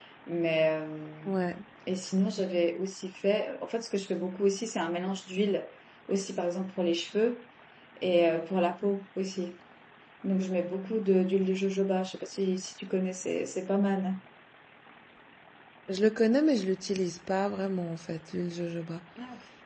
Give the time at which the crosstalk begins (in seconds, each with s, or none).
none